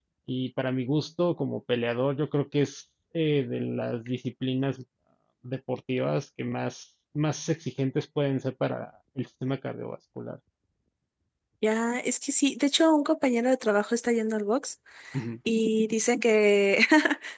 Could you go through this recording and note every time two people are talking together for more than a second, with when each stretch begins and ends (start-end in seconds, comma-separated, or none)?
none